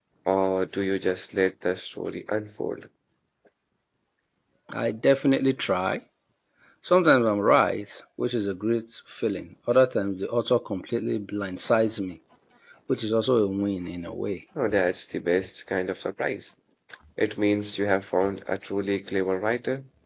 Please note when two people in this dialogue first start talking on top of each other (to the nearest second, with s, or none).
none